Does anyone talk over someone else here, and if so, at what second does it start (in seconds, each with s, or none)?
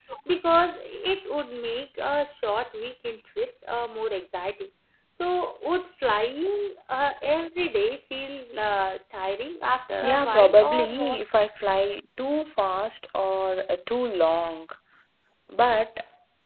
10.0 s